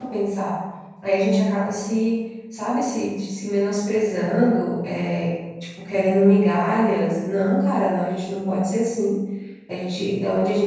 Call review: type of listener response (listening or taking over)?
listening